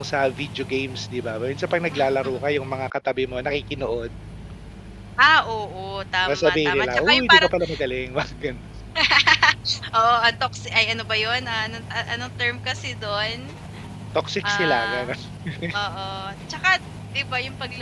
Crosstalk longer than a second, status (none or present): present